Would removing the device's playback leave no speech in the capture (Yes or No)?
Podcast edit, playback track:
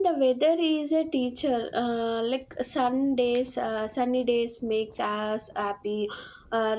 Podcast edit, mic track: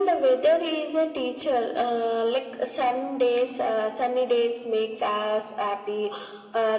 Yes